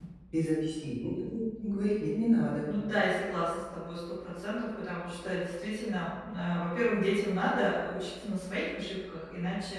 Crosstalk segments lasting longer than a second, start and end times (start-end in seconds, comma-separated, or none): none